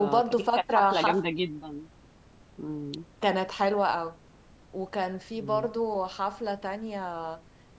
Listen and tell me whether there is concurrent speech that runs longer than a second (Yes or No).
Yes